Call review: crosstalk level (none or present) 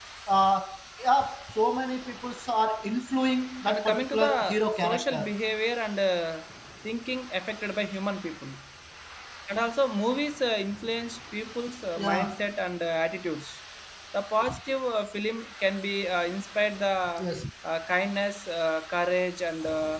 present